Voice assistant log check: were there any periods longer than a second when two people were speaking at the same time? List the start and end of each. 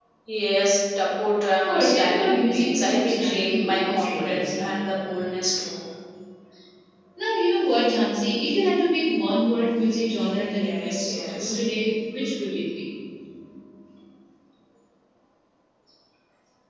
1.7-4.7, 10.3-11.6

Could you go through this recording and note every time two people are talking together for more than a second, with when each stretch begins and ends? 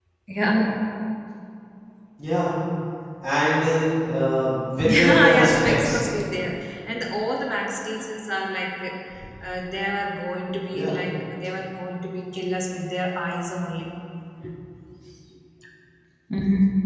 4.8-6.0

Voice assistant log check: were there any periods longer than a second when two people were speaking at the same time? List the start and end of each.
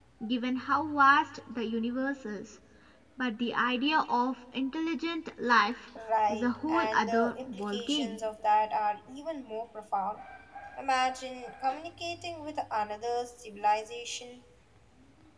6.3-8.2

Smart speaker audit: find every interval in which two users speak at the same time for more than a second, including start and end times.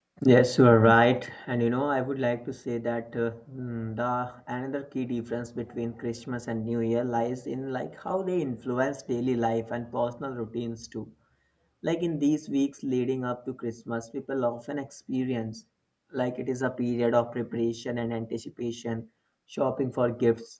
none

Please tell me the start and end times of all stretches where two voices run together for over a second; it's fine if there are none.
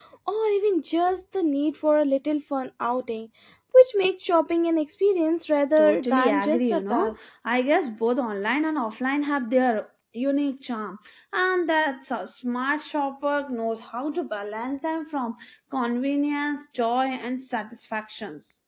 5.8-7.1

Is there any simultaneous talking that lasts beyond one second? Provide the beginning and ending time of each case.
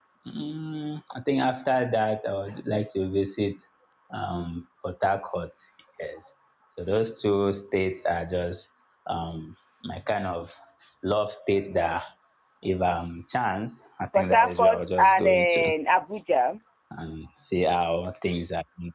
14.1-15.7

